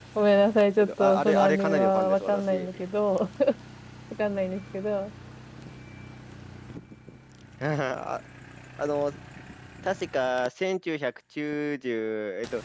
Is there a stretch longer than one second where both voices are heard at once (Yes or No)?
Yes